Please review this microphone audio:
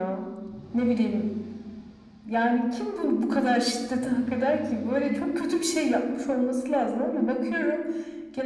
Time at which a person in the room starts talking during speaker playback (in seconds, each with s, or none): none